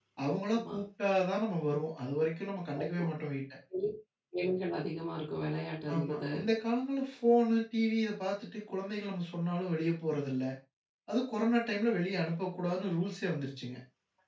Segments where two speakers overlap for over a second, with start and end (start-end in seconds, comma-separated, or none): none